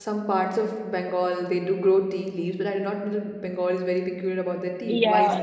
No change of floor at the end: No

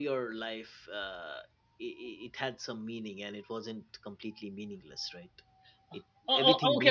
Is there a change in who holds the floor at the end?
Yes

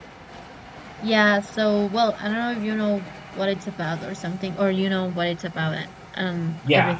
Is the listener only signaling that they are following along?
No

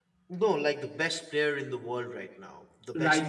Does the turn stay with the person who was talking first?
No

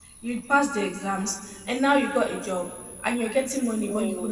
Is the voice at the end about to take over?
No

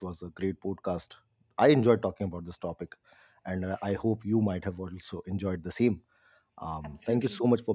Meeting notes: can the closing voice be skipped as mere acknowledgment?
Yes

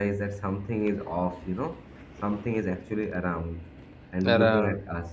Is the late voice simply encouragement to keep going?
Yes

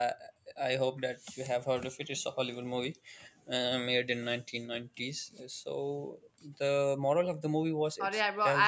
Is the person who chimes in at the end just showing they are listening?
No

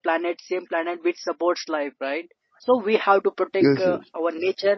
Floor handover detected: No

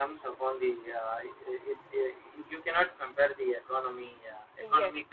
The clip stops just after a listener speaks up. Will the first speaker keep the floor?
Yes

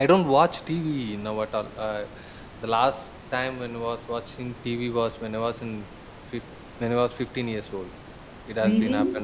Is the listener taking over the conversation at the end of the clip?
No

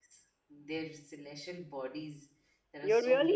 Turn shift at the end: Yes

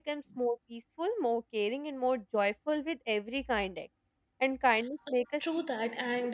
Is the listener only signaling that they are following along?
No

